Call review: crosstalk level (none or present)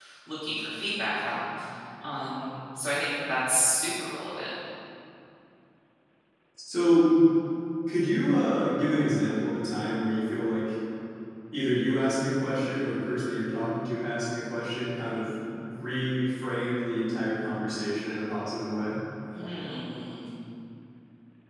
none